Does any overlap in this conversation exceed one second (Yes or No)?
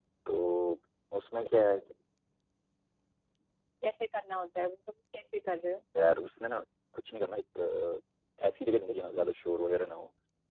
No